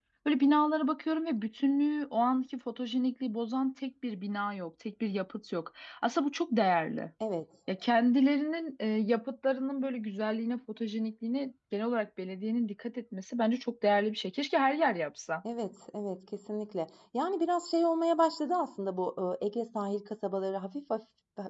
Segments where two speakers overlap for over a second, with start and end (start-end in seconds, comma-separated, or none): none